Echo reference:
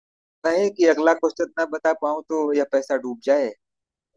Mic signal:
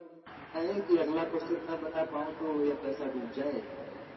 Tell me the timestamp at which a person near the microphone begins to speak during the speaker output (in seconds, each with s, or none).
none